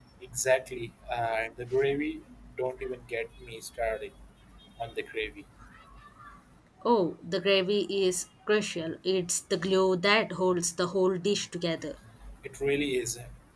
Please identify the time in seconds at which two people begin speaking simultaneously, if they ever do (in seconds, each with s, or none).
none